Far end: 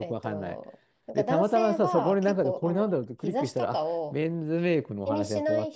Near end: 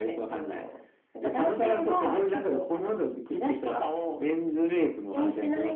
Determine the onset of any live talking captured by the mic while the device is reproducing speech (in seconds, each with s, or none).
none